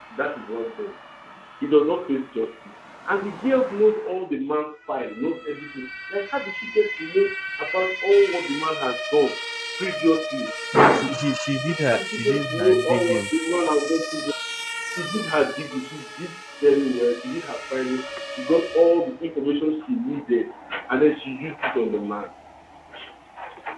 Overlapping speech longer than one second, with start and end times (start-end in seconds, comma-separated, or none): 11.9-13.3